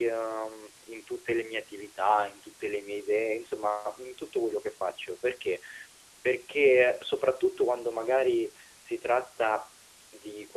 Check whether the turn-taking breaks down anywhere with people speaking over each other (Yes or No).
No